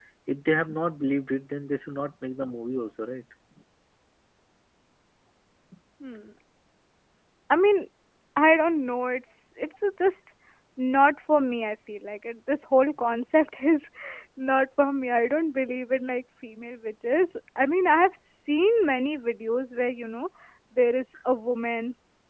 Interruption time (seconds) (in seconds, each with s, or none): none